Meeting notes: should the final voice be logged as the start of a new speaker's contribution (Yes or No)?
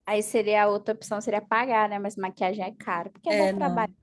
Yes